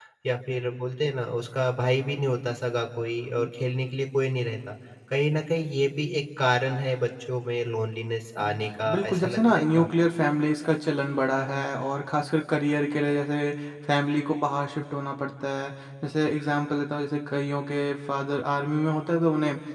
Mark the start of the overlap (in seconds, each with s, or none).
8.4 s